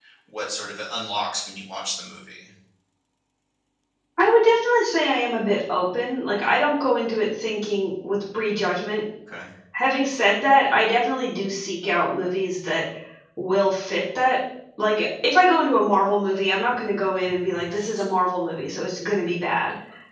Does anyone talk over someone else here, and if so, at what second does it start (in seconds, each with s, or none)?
none